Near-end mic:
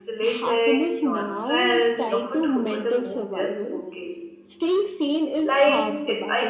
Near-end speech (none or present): present